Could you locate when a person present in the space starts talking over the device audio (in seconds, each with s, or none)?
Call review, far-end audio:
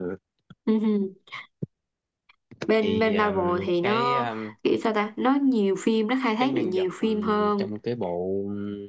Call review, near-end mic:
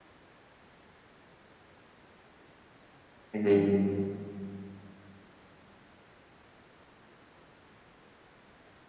3.3 s